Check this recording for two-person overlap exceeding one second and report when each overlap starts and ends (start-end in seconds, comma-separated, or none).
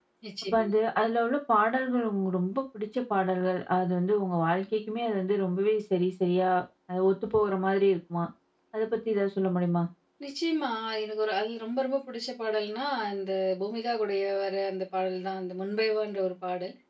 none